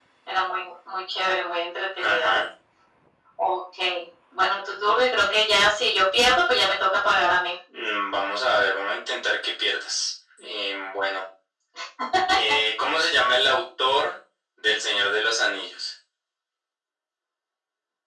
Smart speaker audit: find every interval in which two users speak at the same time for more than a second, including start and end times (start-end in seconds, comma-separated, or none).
none